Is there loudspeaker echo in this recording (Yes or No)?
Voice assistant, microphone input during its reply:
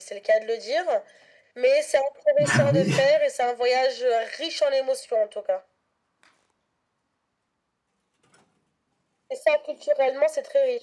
Yes